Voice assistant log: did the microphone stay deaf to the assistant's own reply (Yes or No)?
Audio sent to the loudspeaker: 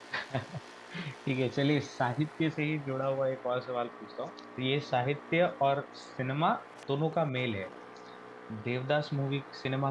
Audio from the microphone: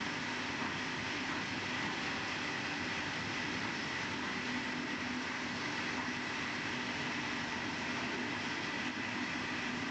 Yes